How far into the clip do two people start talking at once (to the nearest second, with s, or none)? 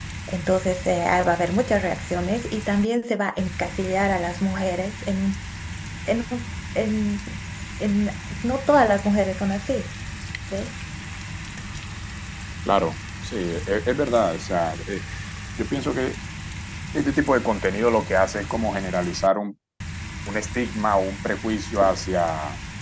none